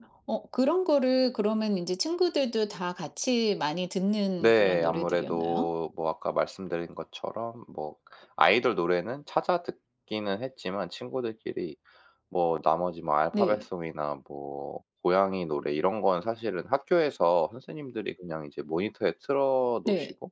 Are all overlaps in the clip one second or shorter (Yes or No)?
No